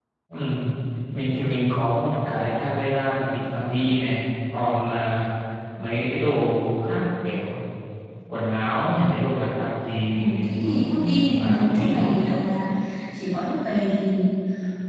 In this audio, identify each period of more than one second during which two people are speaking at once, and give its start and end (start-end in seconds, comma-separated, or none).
10.2-12.1